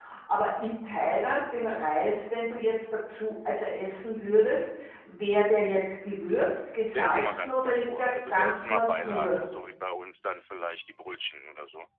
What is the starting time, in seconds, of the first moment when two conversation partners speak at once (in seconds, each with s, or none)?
6.9 s